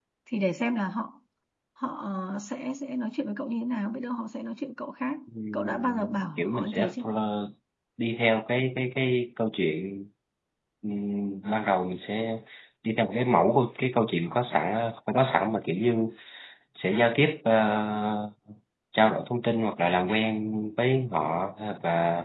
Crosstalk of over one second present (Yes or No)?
Yes